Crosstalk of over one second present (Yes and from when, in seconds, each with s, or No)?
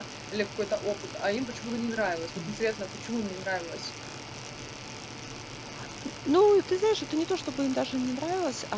No